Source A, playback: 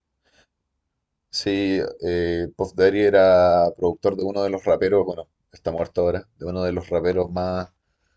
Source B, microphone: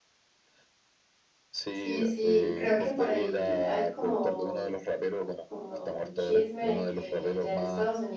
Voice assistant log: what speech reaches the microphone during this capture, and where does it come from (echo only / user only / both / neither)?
both